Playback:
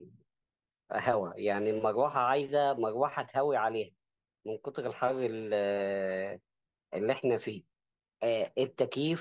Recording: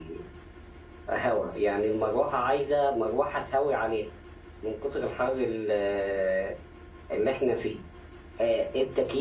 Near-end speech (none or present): none